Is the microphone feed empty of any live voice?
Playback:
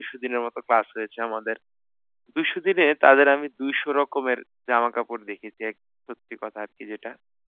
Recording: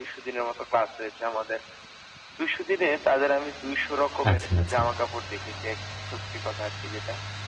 No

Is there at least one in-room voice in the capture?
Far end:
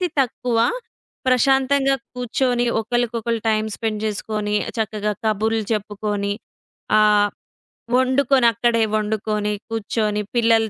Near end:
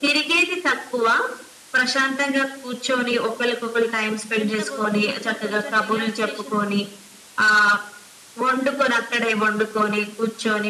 Yes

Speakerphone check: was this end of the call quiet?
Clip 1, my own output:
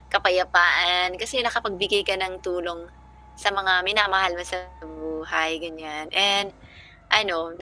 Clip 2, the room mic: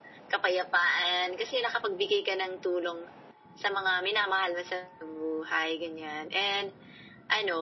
Yes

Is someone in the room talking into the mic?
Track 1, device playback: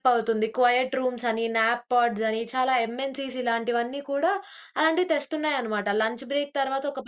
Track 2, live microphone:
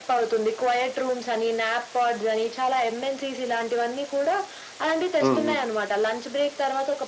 Yes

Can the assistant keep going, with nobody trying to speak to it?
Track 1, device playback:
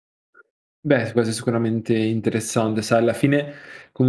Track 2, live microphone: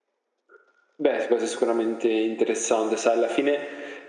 Yes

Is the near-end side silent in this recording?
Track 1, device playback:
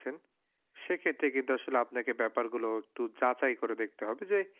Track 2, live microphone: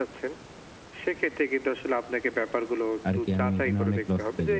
No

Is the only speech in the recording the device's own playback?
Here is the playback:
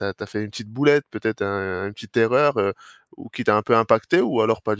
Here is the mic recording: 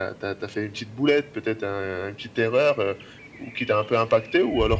Yes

